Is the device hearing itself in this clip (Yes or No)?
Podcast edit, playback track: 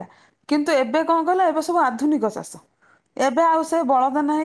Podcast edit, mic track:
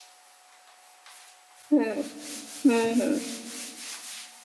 No